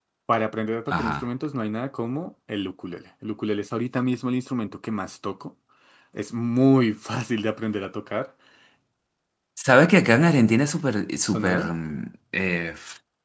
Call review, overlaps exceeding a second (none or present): none